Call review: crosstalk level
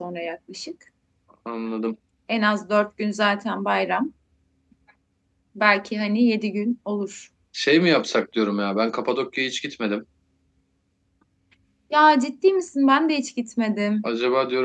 none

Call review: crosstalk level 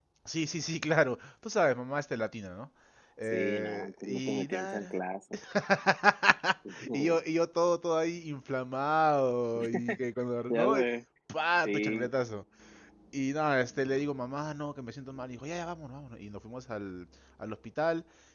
present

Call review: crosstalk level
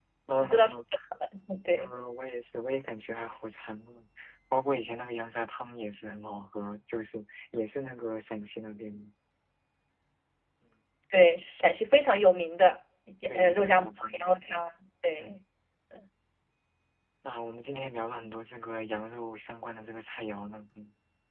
present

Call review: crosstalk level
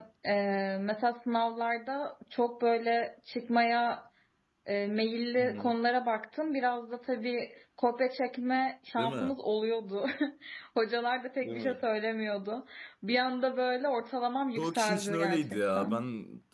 present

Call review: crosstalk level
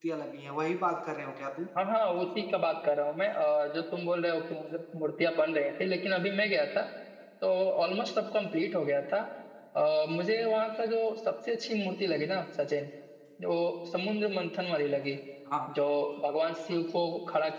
none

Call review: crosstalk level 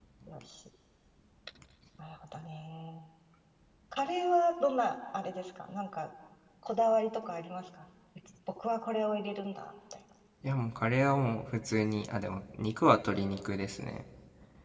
none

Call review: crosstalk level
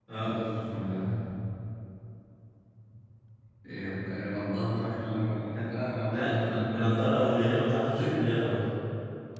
present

